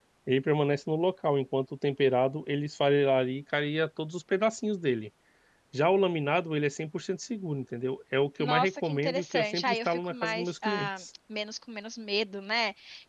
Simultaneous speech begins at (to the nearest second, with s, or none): 8 s